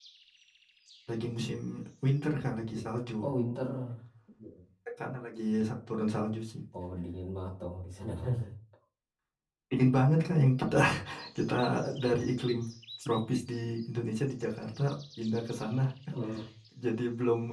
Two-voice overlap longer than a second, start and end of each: none

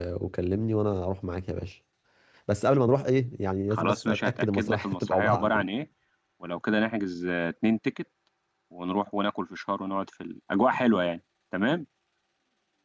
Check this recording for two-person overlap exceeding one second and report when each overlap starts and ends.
3.7-5.6

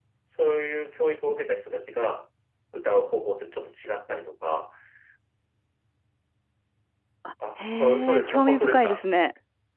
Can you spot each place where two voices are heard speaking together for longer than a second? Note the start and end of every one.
7.6-9.0

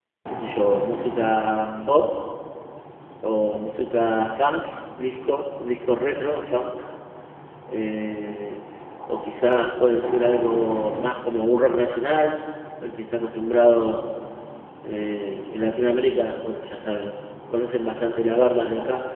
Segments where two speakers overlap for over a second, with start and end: none

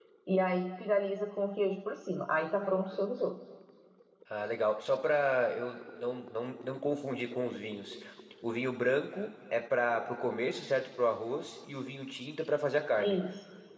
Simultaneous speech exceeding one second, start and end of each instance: none

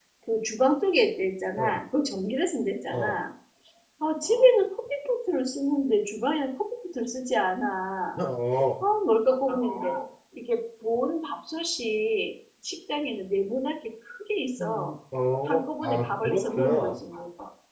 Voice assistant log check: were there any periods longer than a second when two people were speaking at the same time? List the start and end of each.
15.5-16.9

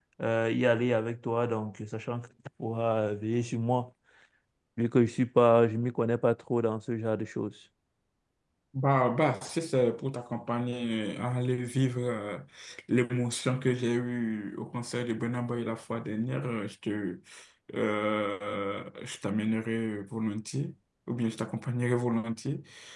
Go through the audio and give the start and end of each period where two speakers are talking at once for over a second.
none

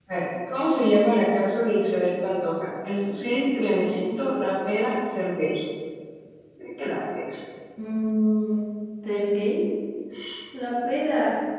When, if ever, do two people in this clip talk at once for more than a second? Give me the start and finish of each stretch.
none

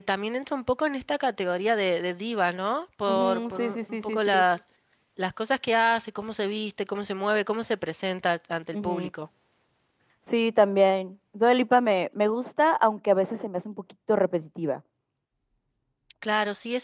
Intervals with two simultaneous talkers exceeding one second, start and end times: 3.1-4.3

